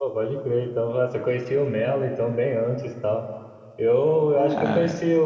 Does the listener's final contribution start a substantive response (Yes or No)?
No